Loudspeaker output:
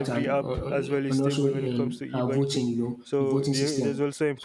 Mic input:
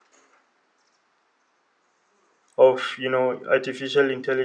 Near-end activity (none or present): present